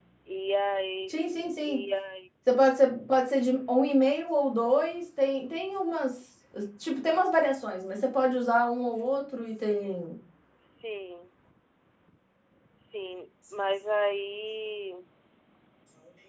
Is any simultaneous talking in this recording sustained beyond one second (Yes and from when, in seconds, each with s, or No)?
No